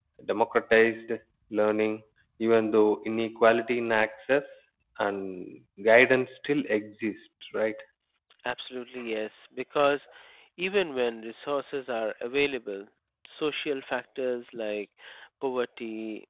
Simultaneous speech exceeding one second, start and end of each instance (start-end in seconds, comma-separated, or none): none